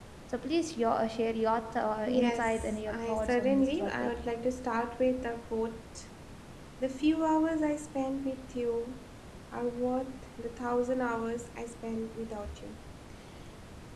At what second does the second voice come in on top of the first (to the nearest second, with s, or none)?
2 s